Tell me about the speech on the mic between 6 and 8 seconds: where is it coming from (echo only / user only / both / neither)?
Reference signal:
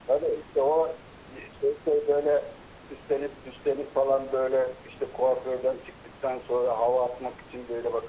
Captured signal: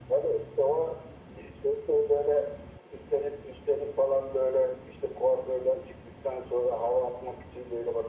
echo only